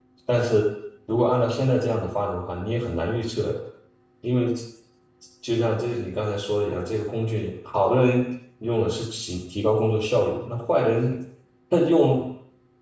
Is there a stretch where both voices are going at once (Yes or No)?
No